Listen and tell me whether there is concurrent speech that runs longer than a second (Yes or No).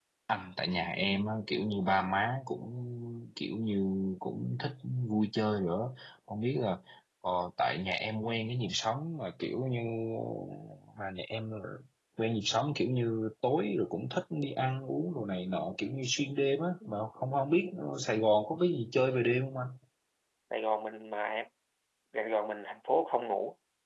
No